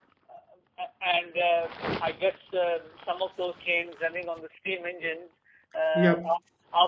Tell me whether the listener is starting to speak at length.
No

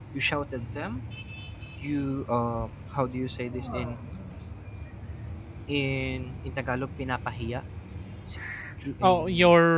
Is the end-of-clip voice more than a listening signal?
Yes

